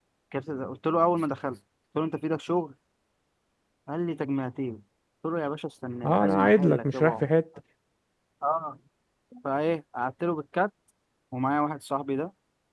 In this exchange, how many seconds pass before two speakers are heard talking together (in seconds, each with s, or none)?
6.0 s